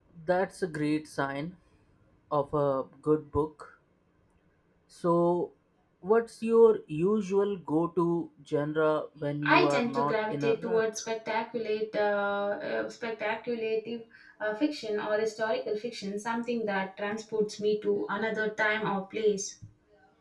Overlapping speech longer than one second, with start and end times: 9.4-10.8

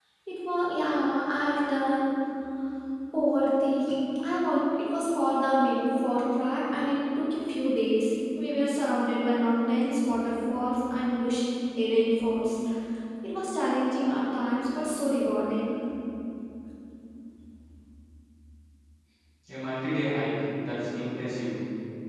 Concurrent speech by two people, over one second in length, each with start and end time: none

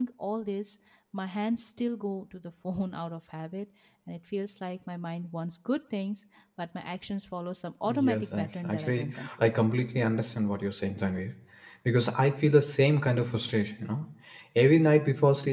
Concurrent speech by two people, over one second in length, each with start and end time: 7.9-9.5

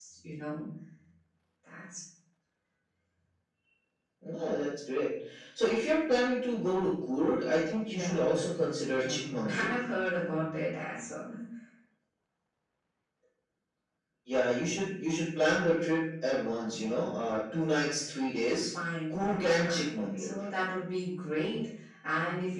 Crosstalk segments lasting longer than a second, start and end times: 7.9-9.8, 19.1-20.4

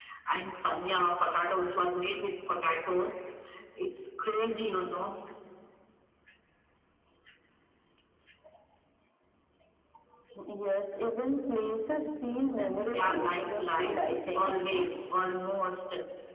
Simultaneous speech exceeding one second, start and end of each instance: 12.9-14.8

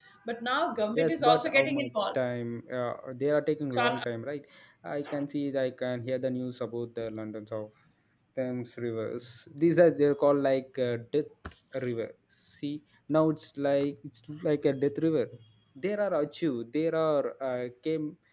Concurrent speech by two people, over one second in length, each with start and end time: 0.9-2.2

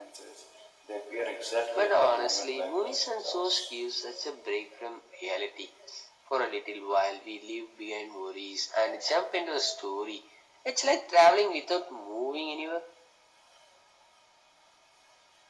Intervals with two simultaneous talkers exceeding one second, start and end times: 1.8-3.6

